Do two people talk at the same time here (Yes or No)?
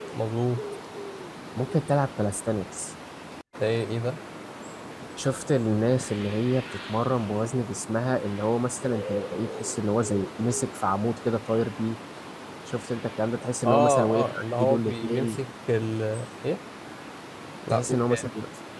Yes